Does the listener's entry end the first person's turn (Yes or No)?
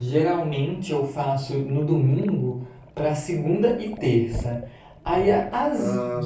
No